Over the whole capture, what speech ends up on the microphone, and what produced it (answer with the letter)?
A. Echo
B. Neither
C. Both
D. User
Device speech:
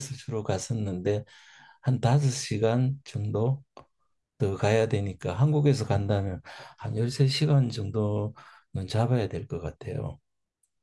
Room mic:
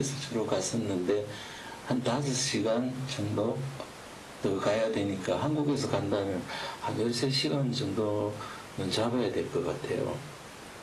A